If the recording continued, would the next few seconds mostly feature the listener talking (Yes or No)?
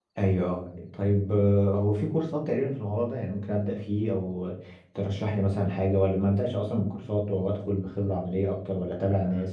Yes